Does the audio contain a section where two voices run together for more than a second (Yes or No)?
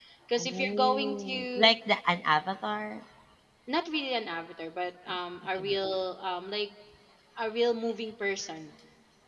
Yes